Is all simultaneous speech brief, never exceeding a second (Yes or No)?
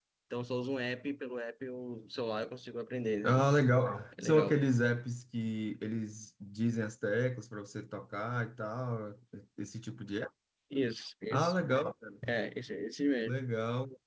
Yes